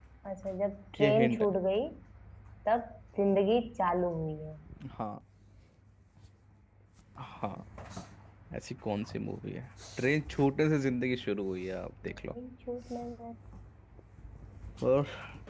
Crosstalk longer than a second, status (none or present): none